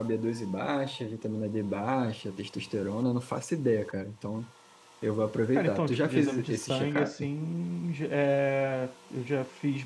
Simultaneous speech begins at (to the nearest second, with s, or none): 6 s